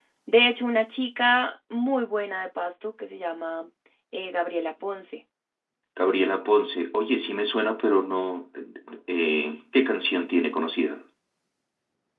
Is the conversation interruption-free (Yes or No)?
Yes